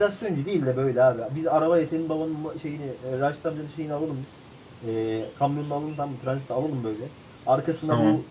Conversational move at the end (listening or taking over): listening